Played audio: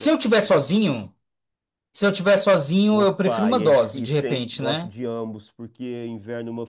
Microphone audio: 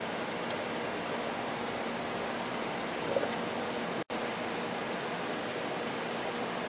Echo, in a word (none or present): none